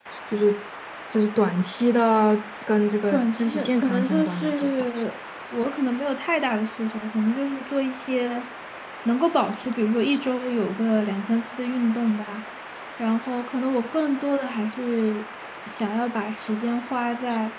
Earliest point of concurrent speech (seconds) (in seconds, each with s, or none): 3.1 s